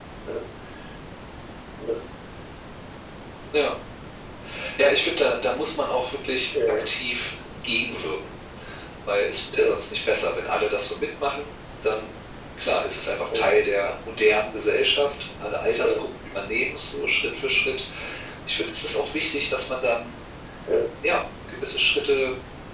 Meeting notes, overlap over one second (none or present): none